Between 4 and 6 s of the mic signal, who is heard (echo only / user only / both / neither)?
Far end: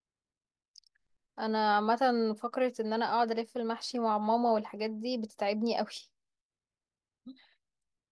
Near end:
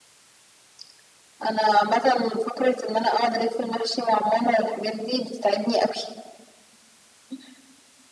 echo only